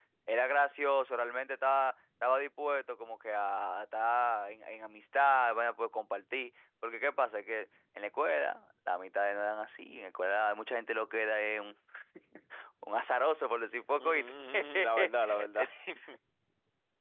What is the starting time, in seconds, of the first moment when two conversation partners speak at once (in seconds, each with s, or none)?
14.0 s